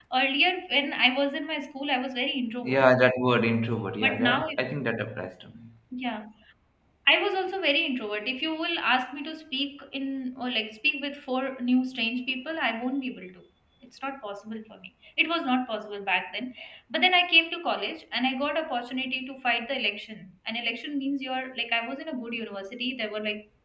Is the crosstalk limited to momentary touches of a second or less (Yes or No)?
Yes